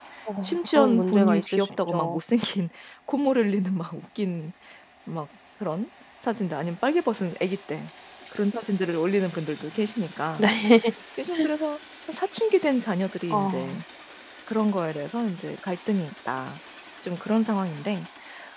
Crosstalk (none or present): present